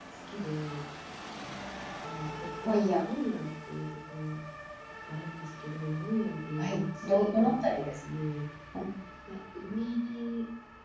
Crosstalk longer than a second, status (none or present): present